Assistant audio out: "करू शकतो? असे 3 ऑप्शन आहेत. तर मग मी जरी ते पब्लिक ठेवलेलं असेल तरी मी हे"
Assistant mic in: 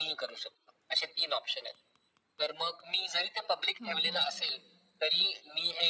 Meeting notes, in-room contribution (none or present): present